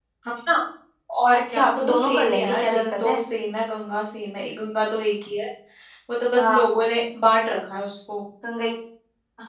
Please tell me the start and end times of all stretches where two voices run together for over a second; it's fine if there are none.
1.6-3.2

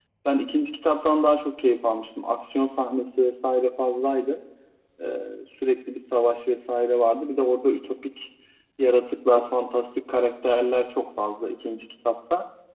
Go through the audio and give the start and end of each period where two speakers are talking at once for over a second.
none

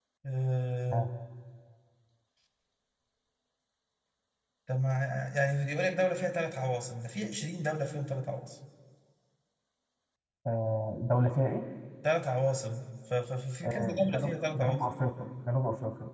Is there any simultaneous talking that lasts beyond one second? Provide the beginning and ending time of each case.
13.6-14.8

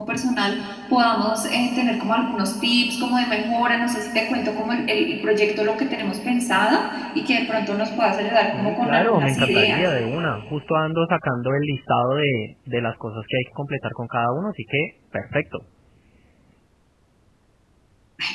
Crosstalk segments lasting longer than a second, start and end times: 8.5-9.8

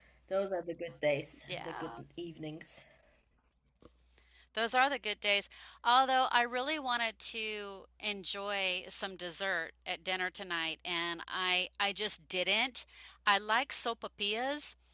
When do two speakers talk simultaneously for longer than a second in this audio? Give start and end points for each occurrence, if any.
none

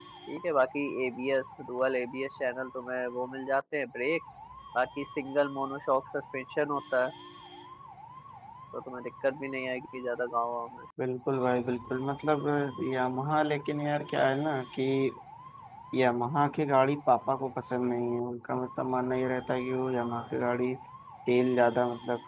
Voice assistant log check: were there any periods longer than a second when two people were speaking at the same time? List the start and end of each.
none

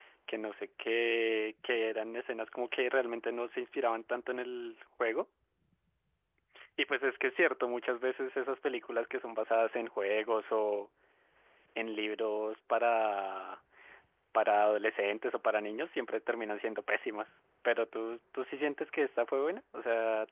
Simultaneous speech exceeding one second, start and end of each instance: none

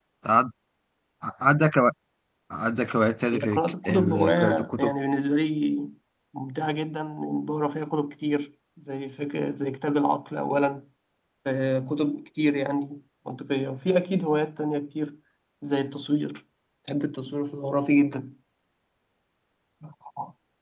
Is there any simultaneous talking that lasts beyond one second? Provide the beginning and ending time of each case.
3.3-4.9

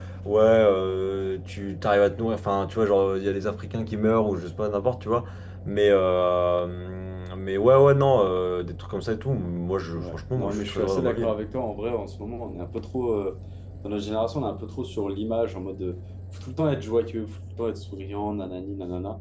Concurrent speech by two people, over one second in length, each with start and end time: 9.9-11.4

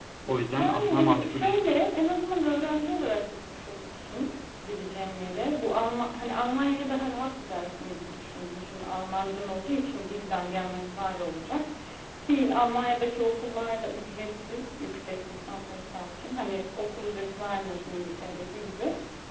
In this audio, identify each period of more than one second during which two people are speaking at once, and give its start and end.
0.5-1.8

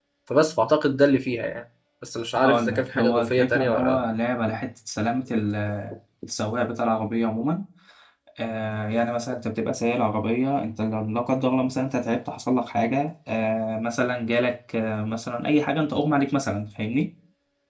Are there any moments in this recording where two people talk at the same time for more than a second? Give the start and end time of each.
2.4-4.0

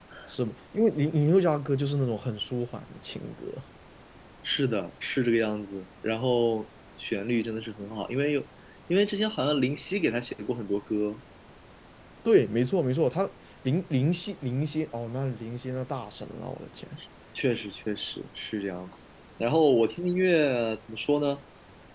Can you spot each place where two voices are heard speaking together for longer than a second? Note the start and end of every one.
none

